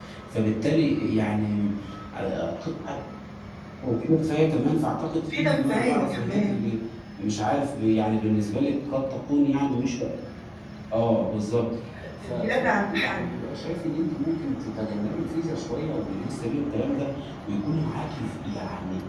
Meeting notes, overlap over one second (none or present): present